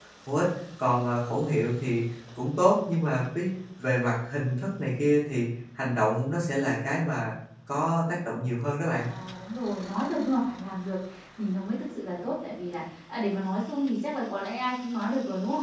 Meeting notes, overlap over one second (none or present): none